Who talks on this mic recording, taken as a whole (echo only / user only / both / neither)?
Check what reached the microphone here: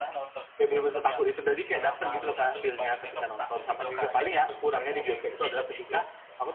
both